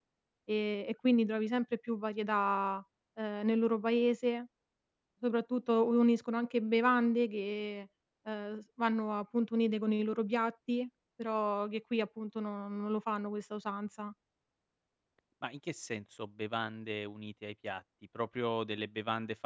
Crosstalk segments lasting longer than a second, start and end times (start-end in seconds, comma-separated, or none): none